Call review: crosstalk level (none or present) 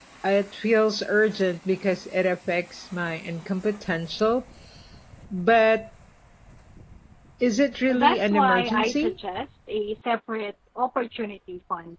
present